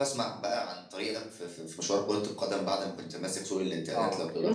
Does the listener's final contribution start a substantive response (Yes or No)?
Yes